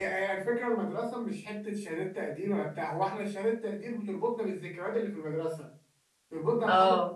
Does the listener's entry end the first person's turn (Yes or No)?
No